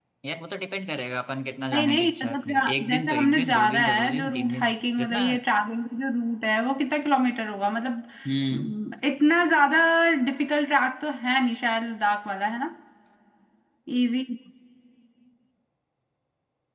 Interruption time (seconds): 1.7 s

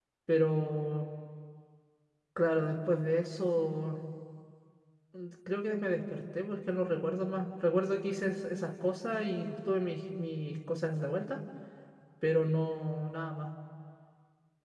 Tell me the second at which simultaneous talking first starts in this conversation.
none

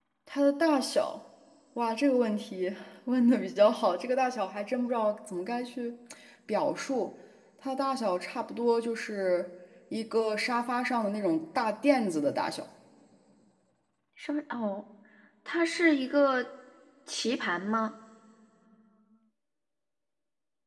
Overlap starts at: none

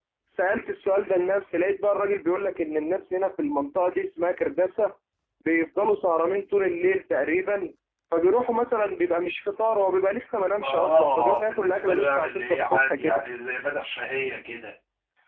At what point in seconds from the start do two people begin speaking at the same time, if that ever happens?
10.6 s

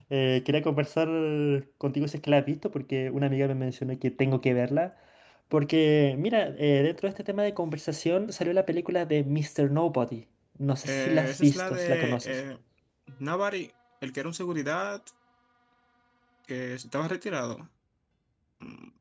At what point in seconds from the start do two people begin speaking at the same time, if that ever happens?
10.8 s

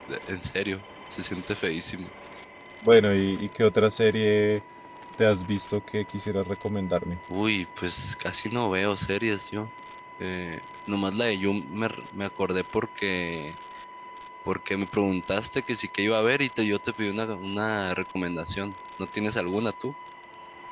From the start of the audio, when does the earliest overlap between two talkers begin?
none

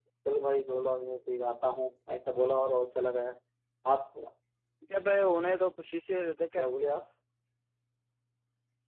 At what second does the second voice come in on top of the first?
none

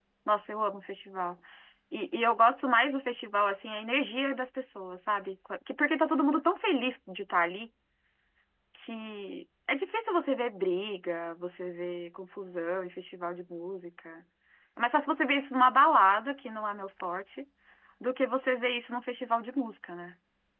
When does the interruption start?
none

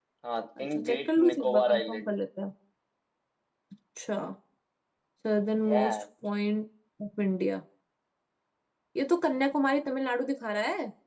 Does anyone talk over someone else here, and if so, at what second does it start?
0.6 s

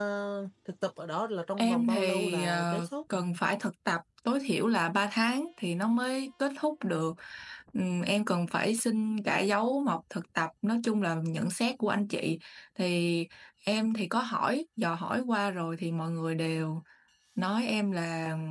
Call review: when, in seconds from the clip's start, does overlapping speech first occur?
1.6 s

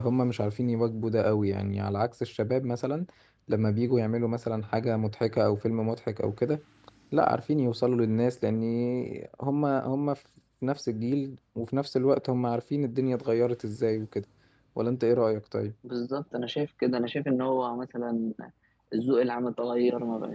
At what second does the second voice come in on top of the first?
none

